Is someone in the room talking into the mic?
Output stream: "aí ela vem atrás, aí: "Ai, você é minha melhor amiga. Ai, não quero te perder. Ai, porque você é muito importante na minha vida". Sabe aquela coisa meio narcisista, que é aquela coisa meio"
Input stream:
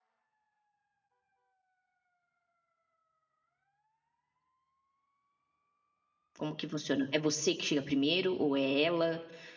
Yes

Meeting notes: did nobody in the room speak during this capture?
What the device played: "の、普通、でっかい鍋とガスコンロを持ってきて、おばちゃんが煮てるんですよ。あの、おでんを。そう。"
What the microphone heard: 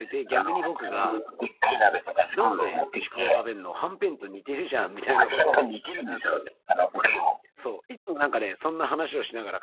No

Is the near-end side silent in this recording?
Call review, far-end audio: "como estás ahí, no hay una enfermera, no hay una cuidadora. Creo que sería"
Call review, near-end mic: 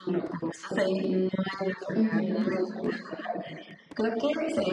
No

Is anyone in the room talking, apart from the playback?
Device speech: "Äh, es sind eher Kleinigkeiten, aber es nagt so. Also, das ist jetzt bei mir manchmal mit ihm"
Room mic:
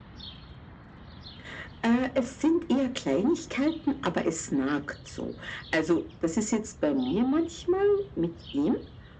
No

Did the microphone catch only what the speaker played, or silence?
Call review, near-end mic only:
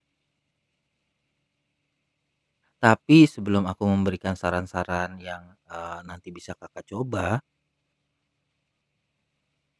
No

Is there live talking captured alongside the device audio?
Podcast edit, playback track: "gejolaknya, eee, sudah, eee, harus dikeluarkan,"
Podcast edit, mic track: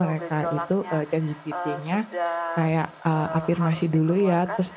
Yes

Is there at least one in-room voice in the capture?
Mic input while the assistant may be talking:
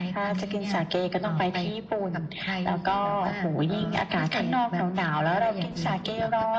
No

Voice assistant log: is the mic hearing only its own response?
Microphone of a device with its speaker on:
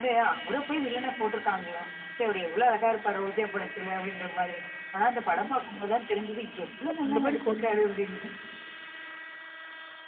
No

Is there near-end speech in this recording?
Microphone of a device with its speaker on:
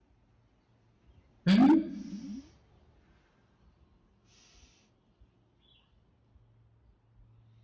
Yes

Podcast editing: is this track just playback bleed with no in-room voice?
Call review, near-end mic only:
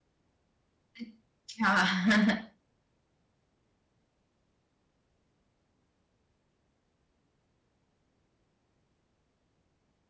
No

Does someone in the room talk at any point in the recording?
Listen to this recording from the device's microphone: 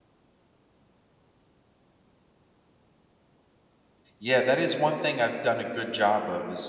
Yes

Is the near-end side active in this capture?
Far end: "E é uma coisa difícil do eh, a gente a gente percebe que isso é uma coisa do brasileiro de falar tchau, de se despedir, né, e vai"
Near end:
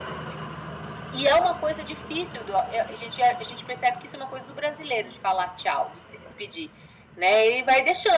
No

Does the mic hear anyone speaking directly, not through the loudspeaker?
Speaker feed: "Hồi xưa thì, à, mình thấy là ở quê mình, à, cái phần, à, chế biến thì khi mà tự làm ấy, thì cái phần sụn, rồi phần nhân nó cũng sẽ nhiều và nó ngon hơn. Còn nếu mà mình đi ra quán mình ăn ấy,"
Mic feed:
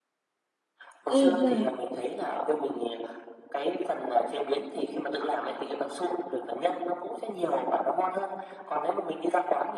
Yes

